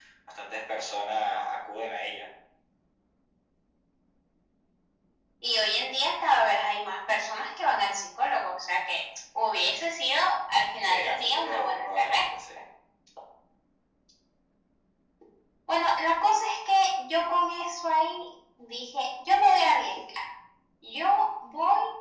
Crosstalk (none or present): present